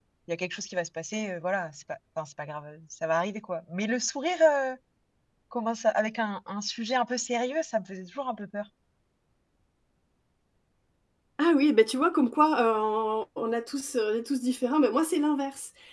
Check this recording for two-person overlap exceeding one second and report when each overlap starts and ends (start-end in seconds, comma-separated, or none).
none